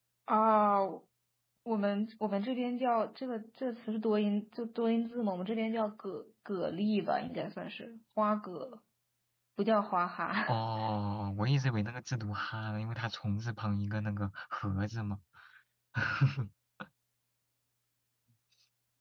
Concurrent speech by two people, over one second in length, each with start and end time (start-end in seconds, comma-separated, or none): none